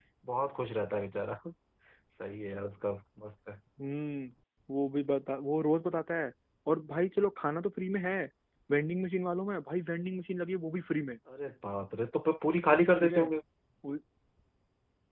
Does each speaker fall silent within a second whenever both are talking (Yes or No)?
Yes